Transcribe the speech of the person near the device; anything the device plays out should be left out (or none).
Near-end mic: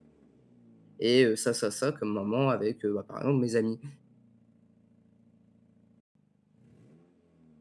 et heu, ça, ça, ça, comme moments avec heu, bah, par exemple mes amis».